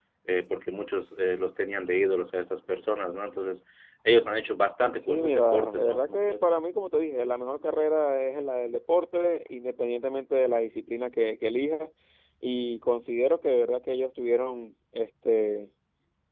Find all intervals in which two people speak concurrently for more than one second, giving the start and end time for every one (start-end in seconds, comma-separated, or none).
5.0-6.4